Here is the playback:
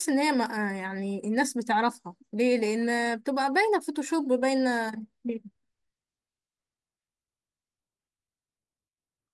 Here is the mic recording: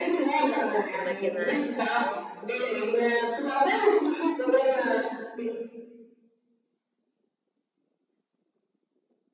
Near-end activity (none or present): present